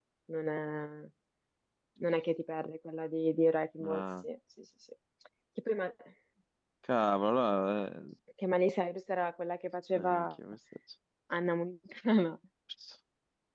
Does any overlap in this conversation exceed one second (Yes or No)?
No